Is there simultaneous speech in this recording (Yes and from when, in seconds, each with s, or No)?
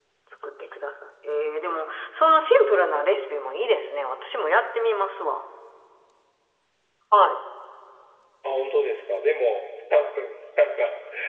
No